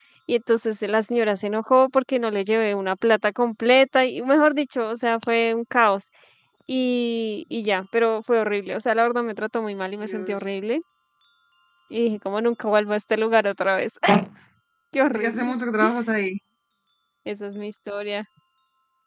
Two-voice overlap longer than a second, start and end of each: none

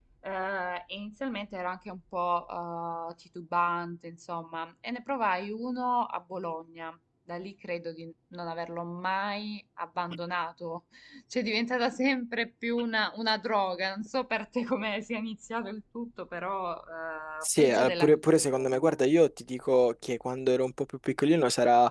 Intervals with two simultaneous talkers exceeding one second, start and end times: 17.4-19.0

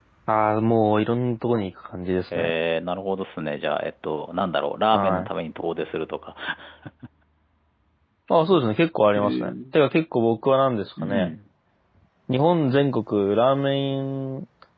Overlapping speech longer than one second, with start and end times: none

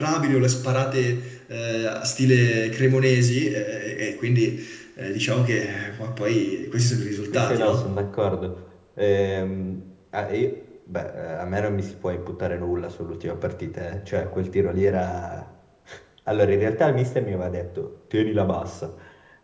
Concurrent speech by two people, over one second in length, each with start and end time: none

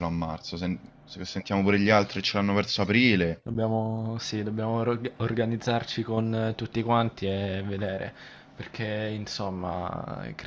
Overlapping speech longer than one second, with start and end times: none

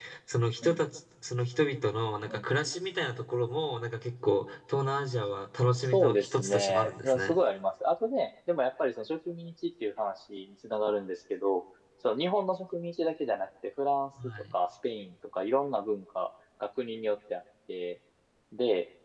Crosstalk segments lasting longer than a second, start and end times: 5.8-7.4

